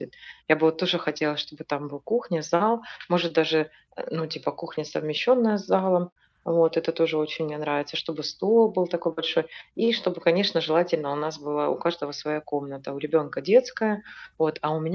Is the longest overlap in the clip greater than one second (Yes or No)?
No